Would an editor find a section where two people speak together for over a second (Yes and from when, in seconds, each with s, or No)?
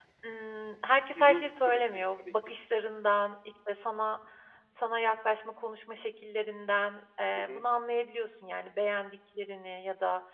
Yes, from 1.1 s